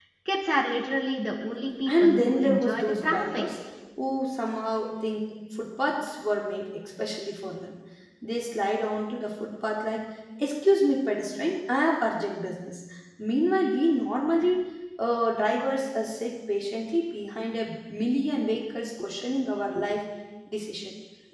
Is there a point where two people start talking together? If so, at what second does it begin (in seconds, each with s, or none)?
1.9 s